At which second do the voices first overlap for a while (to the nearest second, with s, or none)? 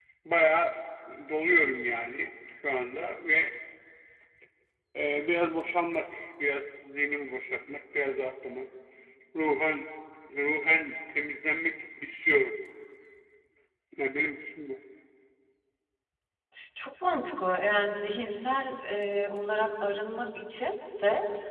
none